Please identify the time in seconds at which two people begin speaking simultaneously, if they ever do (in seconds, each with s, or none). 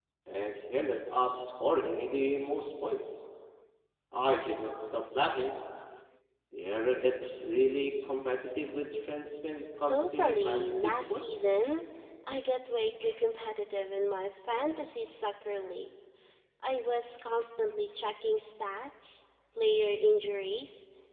9.9 s